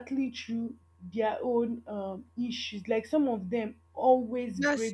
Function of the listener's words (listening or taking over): listening